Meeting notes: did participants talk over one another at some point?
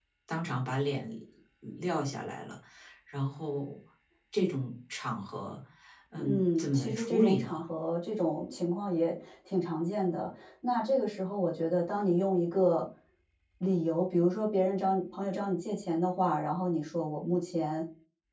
Yes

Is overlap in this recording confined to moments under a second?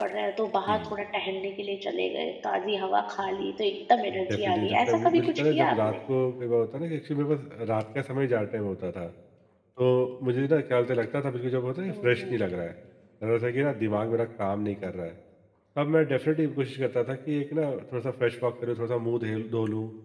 No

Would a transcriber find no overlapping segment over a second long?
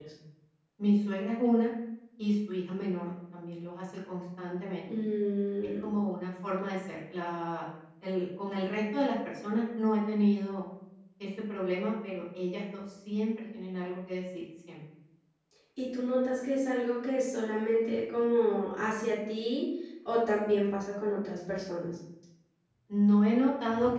Yes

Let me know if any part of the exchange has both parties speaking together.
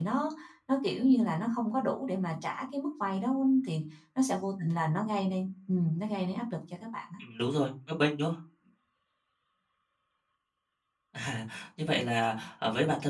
No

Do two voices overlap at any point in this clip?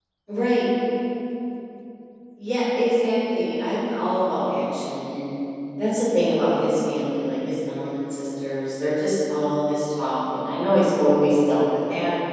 No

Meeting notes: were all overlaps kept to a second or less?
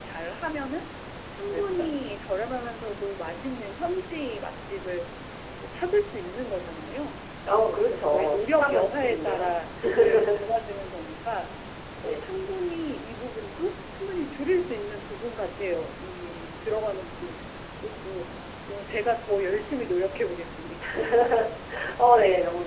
No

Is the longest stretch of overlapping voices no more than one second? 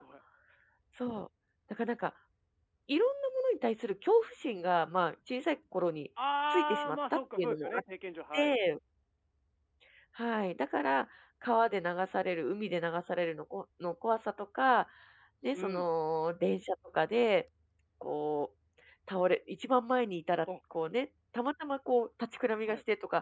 No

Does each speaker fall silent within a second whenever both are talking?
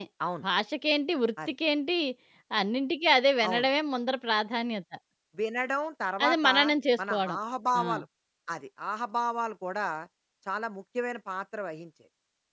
Yes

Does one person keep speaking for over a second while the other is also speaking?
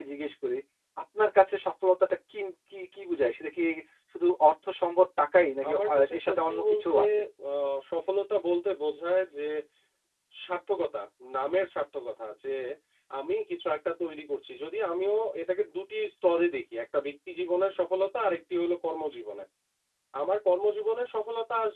Yes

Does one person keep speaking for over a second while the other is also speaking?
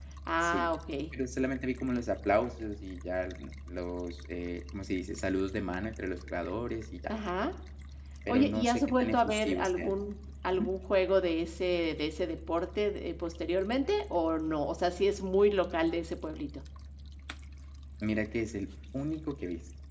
Yes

